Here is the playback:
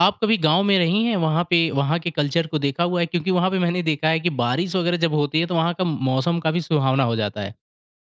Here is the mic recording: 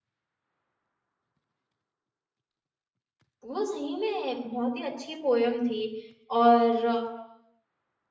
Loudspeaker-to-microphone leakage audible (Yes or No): No